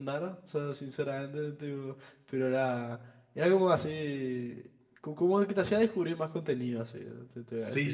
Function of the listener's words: taking over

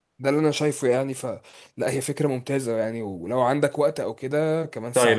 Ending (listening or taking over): taking over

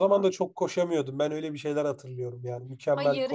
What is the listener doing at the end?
taking over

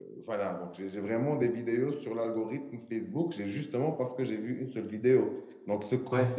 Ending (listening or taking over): listening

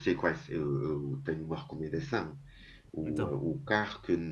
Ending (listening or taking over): listening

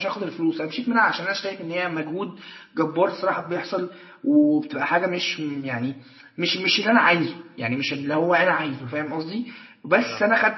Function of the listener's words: listening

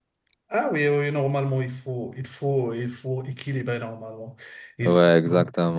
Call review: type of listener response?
taking over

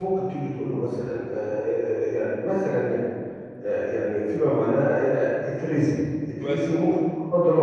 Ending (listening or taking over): listening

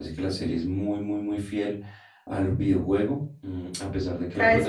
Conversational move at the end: taking over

